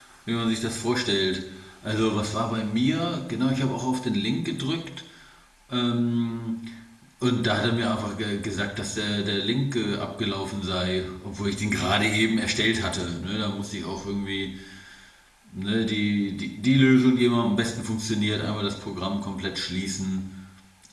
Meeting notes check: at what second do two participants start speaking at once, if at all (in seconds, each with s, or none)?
none